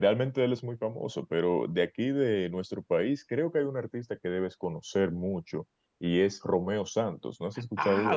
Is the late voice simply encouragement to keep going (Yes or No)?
No